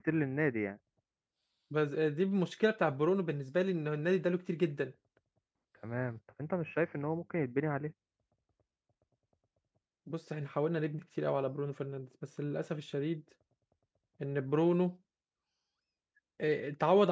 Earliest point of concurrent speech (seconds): none

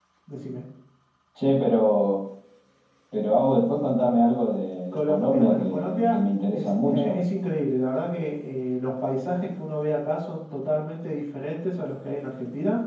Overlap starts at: 5 s

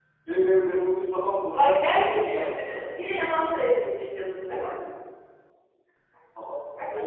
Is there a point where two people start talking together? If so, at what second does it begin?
1 s

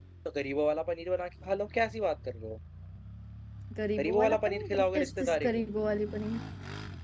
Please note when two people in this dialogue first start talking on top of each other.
4 s

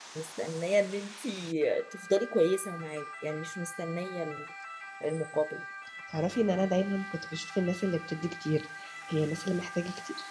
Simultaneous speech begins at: none

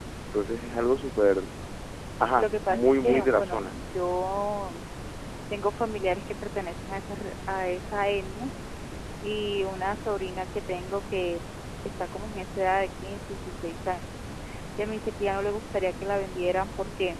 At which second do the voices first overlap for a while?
2 s

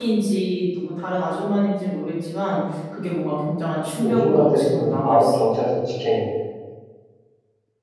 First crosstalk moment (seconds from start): 4 s

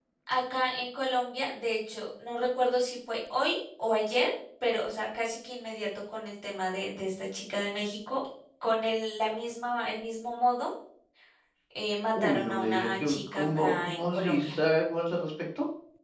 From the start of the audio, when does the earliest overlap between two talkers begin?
12 s

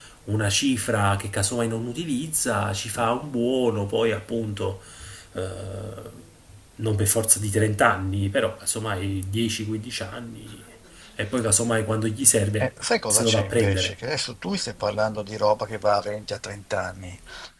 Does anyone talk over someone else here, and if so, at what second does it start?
13 s

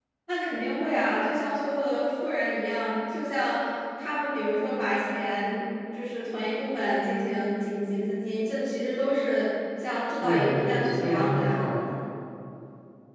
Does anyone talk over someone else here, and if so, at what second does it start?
10 s

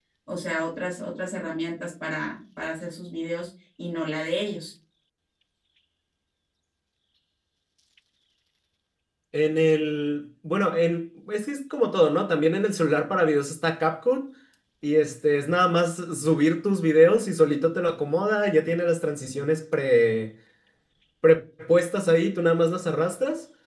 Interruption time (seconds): none

